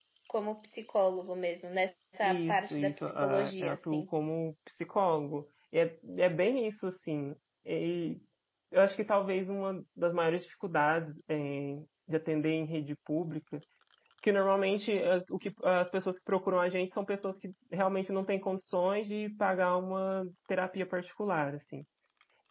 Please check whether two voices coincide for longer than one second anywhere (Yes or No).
Yes